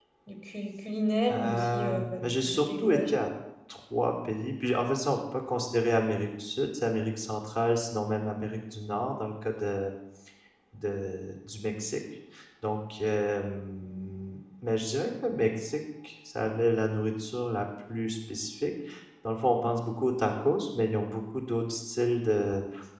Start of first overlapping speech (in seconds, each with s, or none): 1.3 s